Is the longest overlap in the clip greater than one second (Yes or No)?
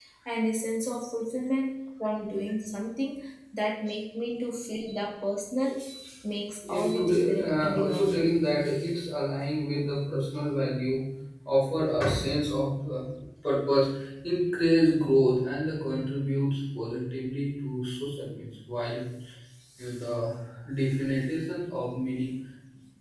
Yes